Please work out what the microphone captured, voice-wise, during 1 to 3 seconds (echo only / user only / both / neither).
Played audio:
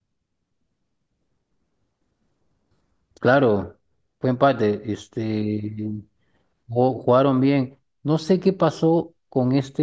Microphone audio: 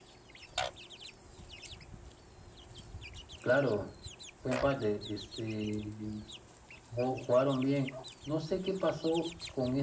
neither